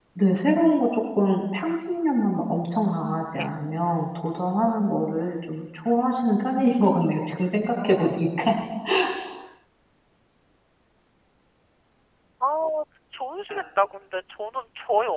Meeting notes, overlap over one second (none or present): none